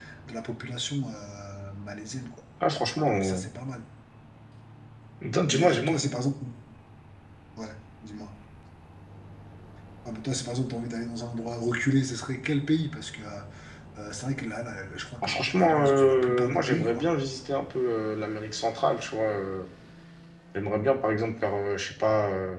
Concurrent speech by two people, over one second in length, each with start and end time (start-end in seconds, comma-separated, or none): 15.2-17.1